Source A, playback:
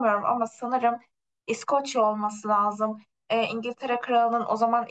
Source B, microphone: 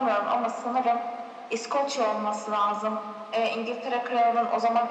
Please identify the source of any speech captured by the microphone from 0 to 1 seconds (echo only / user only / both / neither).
echo only